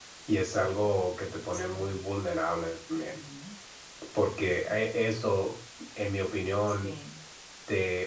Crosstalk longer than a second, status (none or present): none